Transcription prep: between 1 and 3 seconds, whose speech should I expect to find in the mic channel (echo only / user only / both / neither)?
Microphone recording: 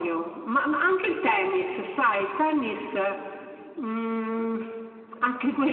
echo only